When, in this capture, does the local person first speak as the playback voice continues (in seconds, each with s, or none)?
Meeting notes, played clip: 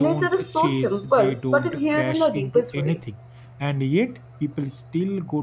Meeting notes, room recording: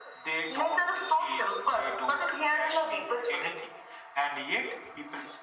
none